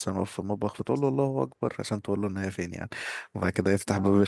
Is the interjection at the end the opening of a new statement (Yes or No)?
No